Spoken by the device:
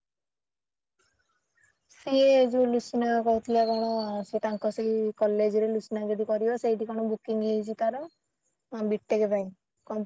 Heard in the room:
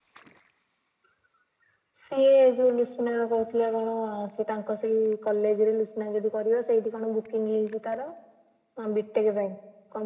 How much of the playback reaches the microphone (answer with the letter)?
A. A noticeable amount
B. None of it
A